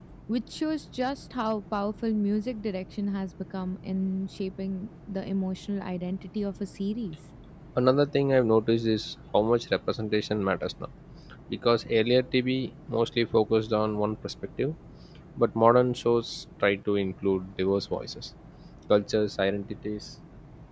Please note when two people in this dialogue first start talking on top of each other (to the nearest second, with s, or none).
none